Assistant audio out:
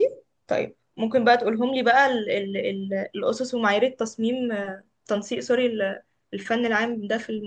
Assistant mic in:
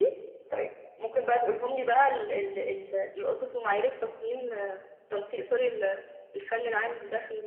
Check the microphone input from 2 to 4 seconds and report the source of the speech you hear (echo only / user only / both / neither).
echo only